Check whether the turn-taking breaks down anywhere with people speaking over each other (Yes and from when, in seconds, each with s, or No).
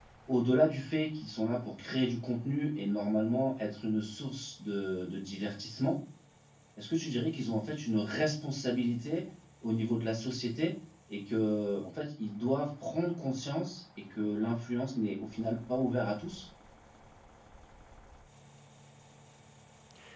No